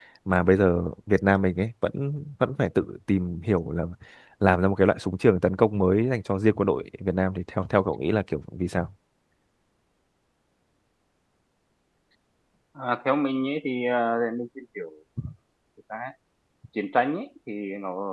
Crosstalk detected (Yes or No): No